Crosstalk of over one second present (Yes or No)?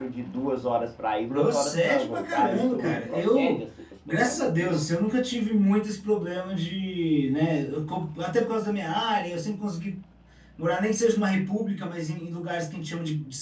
Yes